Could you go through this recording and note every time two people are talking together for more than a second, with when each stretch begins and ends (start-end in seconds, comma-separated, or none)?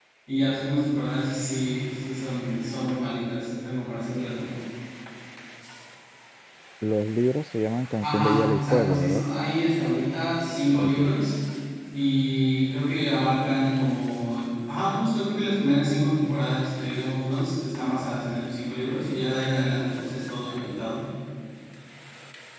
8.0-9.2